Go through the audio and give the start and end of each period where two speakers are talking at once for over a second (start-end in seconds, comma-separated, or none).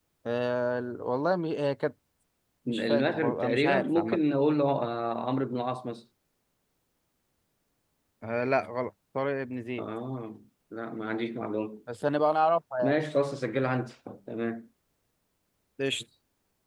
2.7-4.2